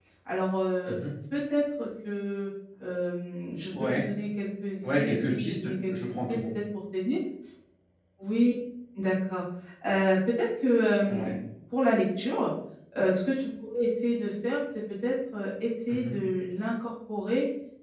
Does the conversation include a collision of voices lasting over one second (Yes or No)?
Yes